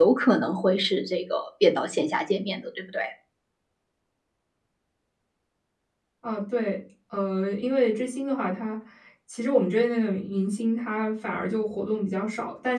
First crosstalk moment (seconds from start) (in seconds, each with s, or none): none